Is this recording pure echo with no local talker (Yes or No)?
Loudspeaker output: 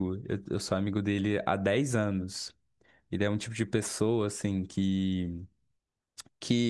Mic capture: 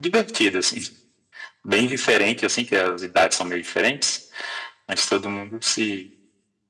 No